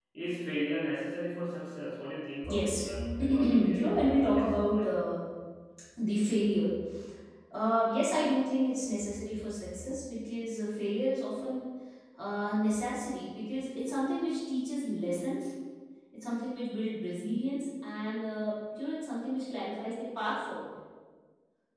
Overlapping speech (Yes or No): Yes